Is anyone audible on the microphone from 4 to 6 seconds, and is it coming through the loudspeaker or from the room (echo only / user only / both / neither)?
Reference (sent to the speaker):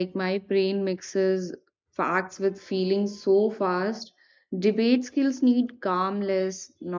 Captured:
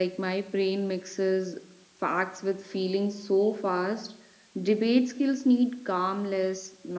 echo only